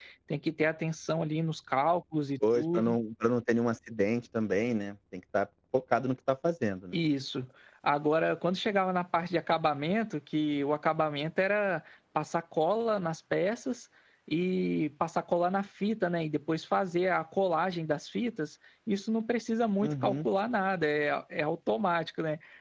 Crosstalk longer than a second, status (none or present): none